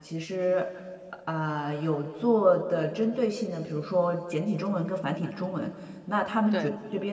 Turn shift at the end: No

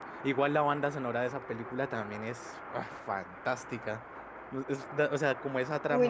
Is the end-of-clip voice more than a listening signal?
Yes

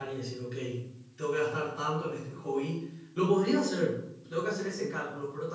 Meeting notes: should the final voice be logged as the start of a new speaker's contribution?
No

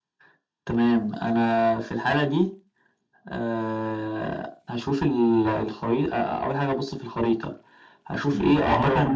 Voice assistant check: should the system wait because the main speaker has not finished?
No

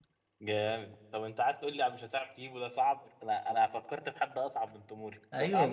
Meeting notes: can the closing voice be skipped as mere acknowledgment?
No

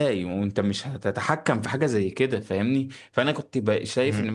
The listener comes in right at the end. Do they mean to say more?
No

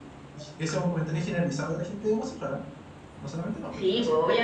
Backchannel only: No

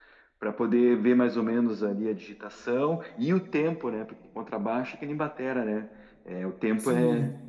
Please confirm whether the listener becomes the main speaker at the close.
Yes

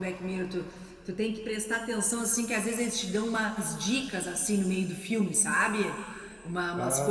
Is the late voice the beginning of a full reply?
No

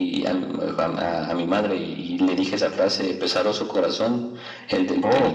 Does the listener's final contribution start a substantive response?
No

